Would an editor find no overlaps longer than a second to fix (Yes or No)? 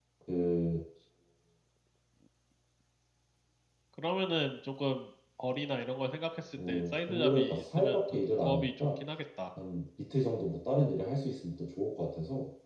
No